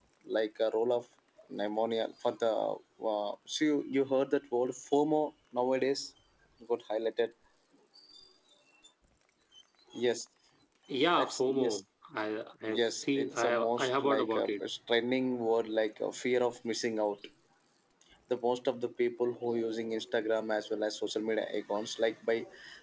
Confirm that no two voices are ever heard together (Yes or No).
No